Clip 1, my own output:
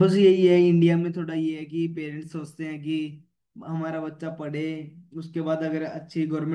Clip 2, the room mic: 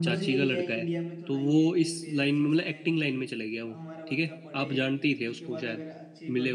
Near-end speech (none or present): present